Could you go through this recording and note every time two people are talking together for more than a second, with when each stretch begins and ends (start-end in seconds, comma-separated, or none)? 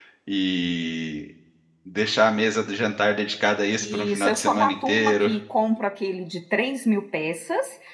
3.8-5.3